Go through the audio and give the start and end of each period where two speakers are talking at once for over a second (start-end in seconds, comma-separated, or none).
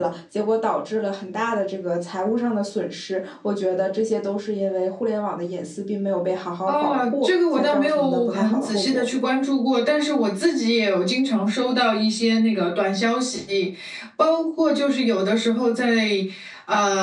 6.7-9.0